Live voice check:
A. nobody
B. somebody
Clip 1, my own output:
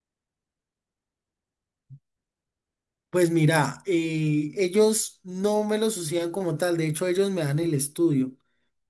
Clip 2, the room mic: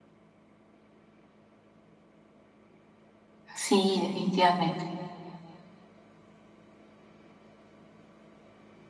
B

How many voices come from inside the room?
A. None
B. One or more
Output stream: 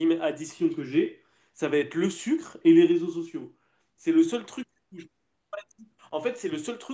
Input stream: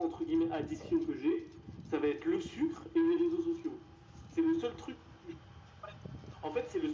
A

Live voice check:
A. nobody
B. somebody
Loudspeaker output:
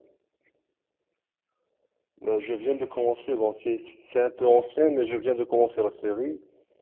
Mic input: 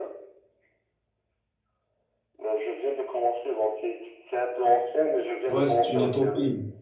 B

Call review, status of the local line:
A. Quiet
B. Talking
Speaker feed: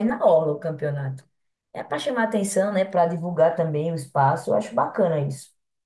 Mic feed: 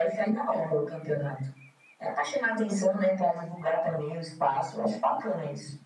A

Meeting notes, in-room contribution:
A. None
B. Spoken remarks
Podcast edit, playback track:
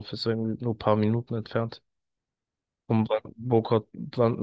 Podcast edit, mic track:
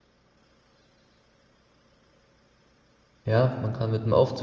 B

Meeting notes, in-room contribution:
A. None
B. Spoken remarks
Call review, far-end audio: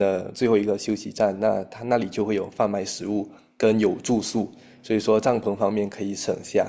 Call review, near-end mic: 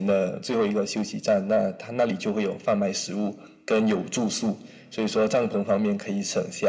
A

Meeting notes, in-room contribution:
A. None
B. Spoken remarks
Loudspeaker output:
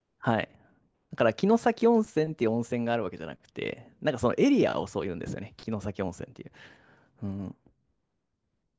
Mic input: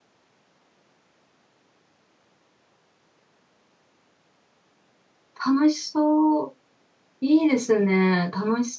B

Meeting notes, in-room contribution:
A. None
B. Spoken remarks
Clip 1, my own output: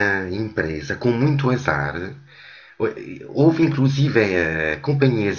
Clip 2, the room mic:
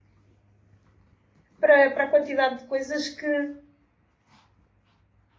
B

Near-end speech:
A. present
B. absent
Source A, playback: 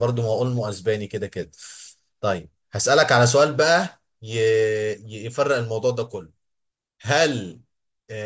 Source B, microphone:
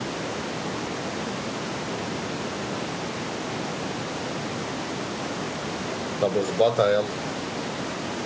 A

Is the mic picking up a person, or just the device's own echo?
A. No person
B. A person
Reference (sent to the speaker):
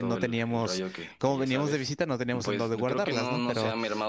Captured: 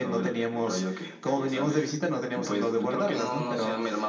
A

